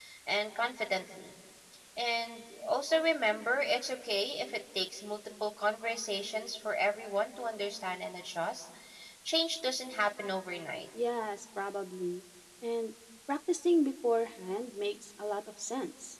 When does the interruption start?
none

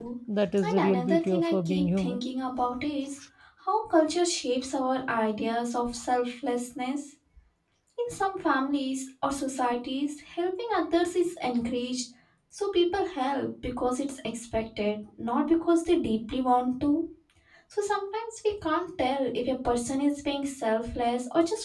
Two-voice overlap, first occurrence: 0.6 s

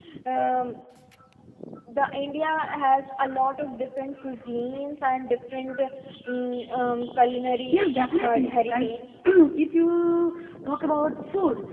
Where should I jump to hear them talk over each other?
7.5 s

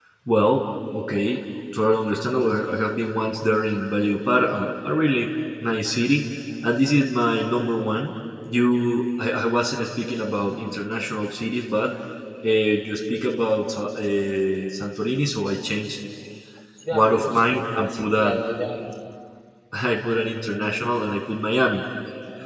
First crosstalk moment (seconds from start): 16.9 s

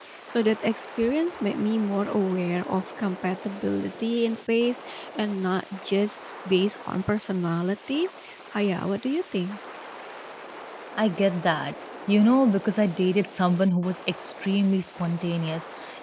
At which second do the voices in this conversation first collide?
none

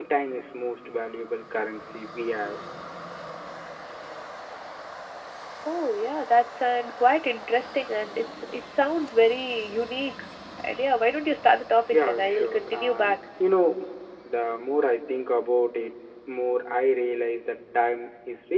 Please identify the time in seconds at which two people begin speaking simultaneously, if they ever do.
11.9 s

